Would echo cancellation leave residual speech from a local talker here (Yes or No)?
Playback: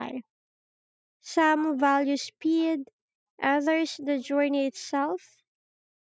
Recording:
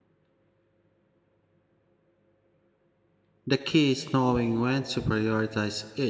Yes